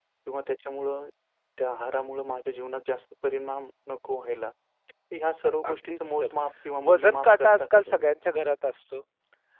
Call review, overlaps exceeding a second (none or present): present